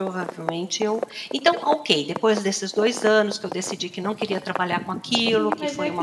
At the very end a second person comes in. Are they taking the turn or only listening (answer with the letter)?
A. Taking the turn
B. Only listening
A